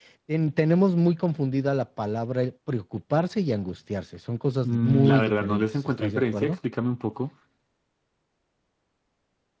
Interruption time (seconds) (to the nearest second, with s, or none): 5 s